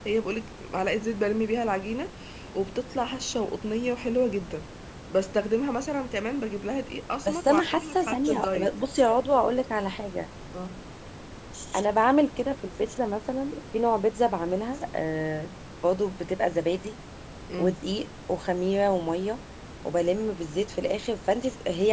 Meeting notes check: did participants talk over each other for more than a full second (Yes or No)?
Yes